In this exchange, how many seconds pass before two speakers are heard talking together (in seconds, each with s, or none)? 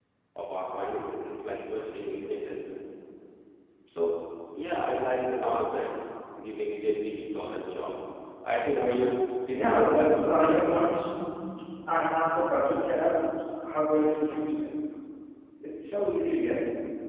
9.5 s